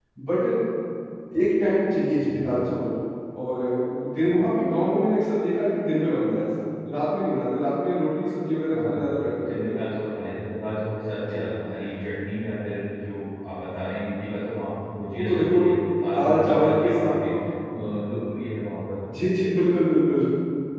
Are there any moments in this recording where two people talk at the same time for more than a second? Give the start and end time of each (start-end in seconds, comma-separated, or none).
16.2-17.4